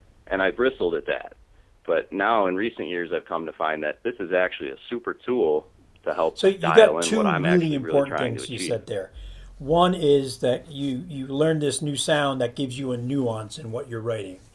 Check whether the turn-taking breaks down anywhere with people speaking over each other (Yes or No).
Yes